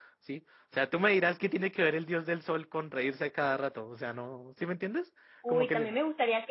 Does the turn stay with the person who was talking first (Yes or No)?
No